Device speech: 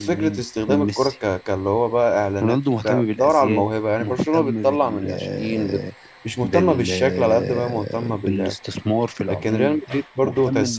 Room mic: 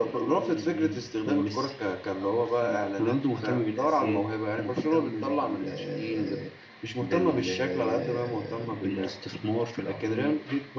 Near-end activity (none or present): present